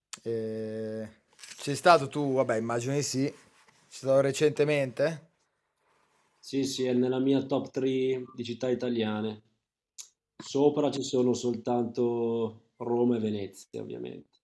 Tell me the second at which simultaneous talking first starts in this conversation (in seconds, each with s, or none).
none